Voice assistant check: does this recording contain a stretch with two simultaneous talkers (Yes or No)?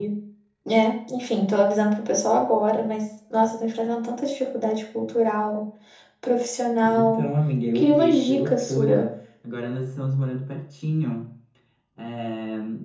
Yes